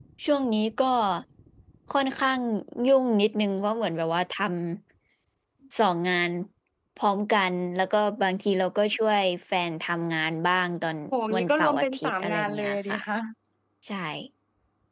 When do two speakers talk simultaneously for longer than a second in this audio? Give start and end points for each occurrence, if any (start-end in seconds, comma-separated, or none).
11.4-13.0